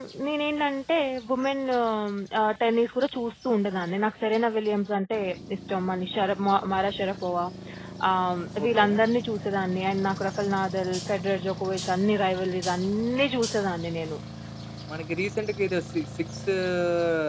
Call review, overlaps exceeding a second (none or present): none